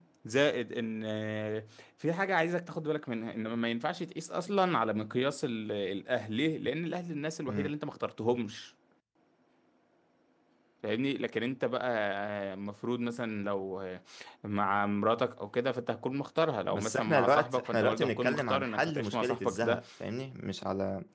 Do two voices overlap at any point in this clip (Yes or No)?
Yes